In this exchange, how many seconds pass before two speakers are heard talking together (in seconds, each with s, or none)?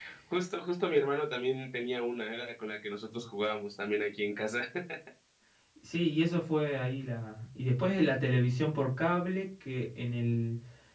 none